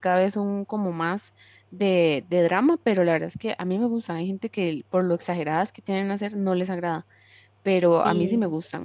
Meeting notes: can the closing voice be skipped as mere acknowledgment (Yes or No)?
Yes